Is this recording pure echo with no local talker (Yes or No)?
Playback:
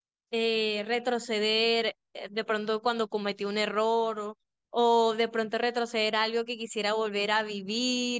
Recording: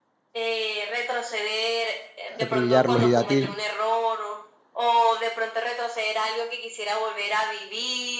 No